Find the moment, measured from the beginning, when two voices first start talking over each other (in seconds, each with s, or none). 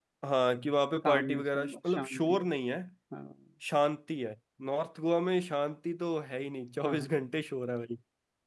1.0 s